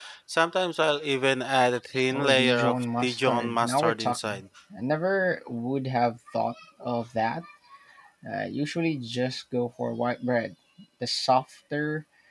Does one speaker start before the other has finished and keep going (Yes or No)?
Yes